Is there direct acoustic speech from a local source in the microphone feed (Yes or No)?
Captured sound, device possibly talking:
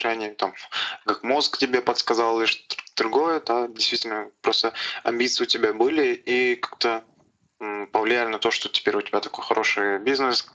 No